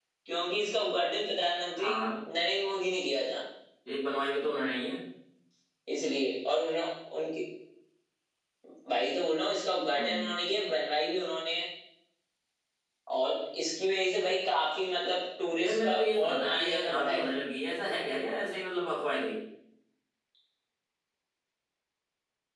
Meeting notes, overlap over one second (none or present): present